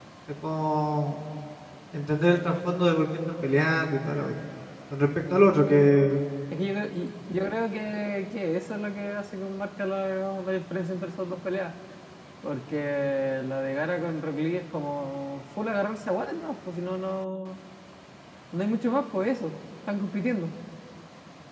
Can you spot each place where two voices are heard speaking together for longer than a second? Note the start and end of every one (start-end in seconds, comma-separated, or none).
none